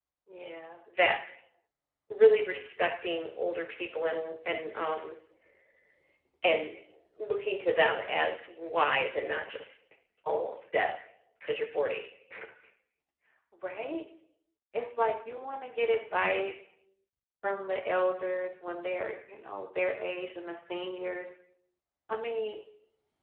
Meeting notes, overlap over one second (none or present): none